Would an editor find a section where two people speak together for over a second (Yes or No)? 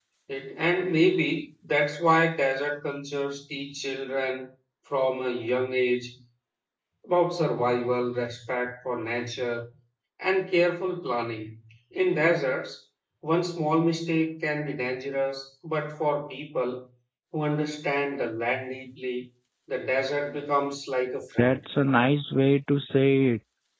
No